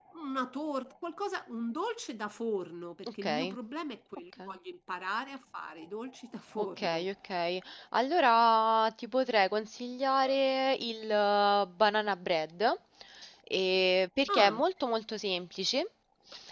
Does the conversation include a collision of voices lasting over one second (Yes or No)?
No